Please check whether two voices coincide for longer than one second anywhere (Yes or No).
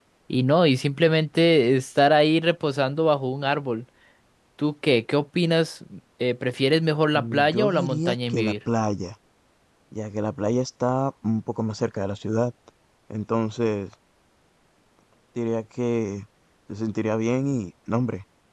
Yes